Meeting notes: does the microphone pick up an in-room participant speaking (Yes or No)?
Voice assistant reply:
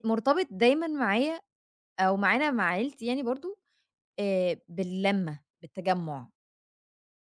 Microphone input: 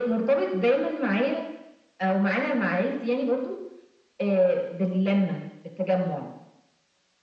No